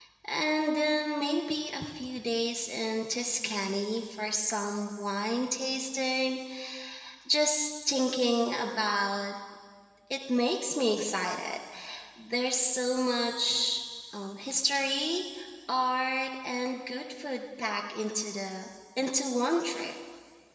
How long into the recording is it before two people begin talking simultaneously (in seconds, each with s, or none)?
none